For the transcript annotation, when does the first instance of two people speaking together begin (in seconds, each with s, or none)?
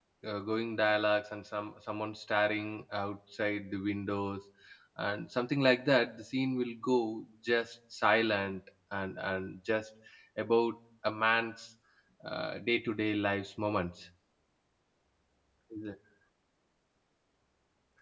none